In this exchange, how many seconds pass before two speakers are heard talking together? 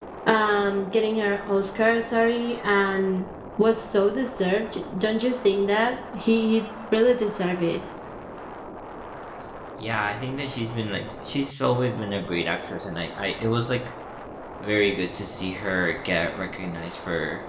none

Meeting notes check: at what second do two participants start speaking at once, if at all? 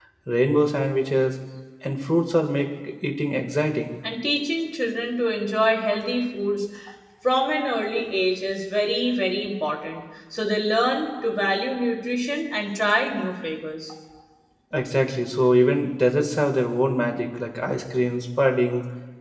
none

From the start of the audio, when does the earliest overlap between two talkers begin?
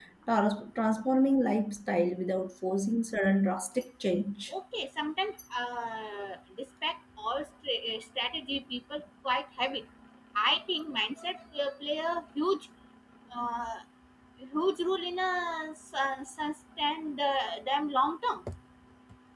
none

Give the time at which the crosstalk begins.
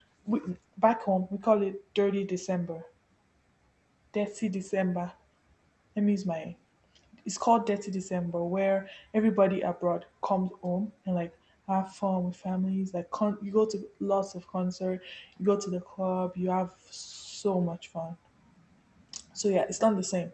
none

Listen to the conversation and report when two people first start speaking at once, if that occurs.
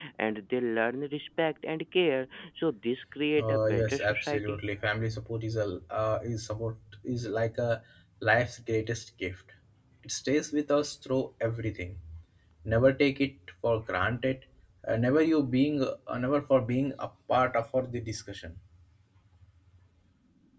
3.4 s

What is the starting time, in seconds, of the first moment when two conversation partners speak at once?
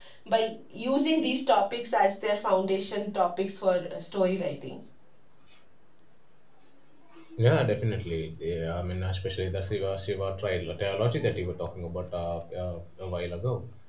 none

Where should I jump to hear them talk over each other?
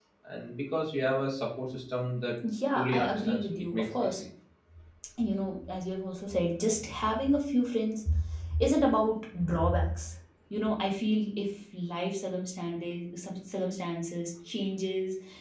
2.7 s

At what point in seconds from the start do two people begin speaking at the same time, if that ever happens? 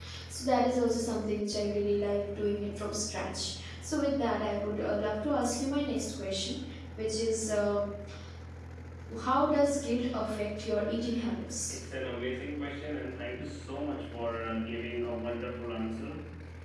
none

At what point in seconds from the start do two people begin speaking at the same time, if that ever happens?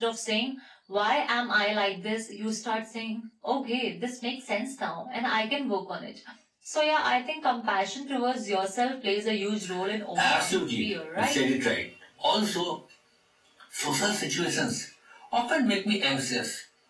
10.2 s

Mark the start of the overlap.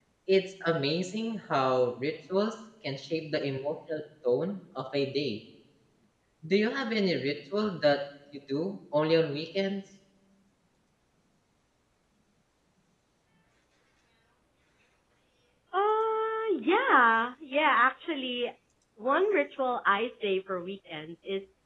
none

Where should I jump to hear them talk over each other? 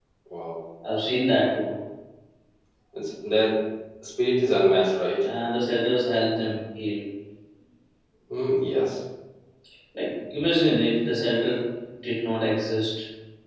none

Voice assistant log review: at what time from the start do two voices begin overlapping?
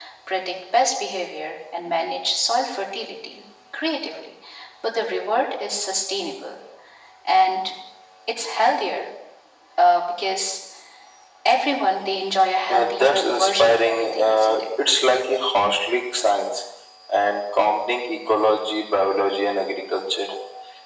12.7 s

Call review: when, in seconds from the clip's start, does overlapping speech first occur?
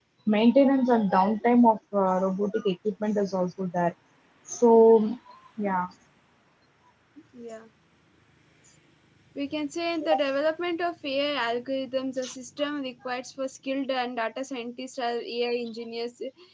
none

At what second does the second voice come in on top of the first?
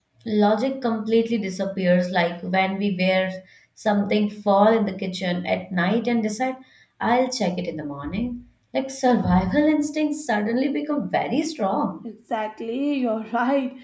none

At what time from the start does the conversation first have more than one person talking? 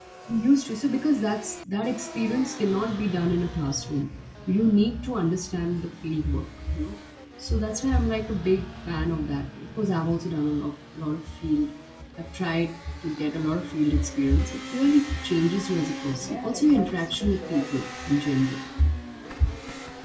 16.1 s

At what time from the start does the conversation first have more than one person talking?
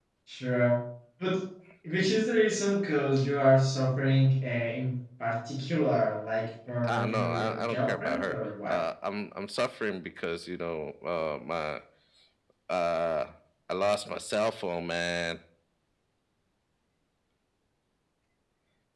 6.8 s

